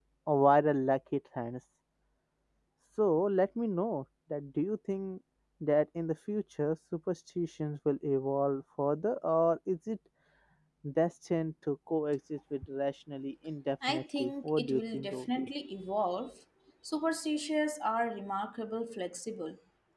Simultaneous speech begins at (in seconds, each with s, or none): 13.8 s